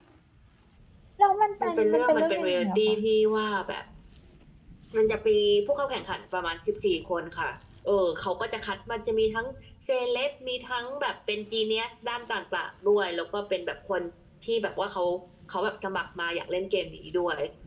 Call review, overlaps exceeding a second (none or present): present